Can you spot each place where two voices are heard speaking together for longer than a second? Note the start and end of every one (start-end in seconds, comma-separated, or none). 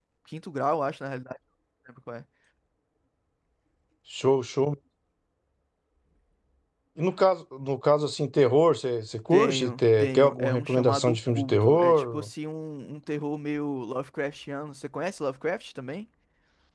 9.3-12.3